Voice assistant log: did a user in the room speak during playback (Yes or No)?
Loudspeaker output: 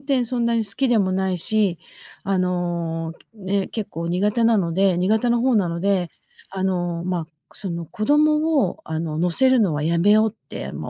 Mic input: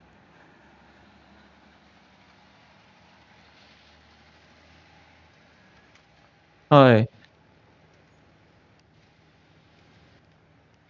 Yes